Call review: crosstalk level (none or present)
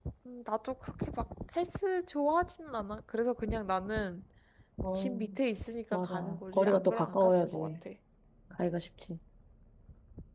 present